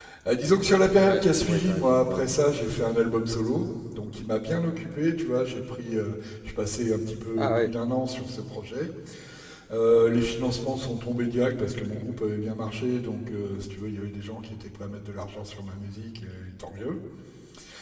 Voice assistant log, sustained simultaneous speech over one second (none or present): present